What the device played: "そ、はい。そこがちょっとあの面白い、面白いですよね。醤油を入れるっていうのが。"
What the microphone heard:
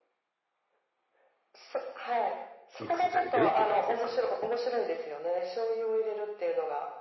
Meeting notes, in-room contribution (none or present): present